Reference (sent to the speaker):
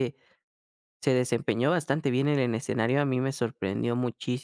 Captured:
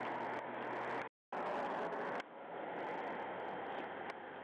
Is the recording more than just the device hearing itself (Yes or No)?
No